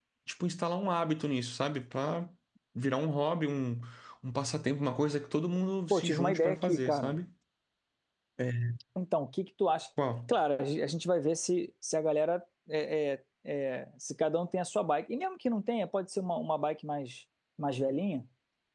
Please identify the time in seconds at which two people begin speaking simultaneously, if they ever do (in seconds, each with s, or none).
5.9 s